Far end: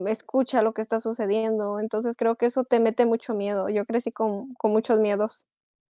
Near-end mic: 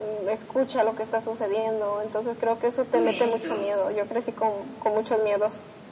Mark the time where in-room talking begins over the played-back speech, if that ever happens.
2.9 s

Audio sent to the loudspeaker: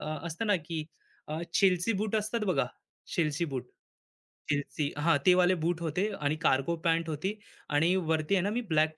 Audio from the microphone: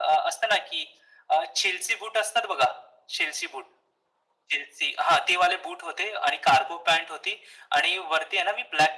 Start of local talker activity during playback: none

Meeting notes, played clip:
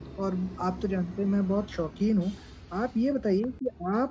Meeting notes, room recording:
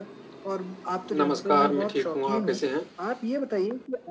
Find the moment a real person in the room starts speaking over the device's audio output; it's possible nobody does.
1.2 s

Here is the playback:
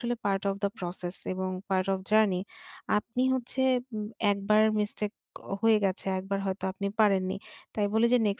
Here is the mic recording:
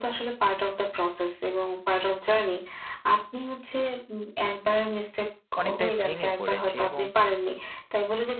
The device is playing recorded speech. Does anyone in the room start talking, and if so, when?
5.6 s

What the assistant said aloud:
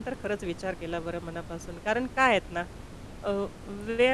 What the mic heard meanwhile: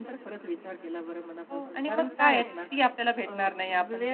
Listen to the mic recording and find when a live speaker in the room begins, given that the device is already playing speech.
1.5 s

